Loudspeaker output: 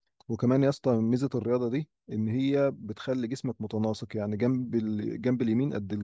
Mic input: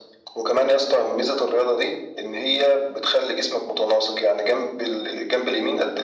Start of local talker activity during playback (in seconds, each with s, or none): none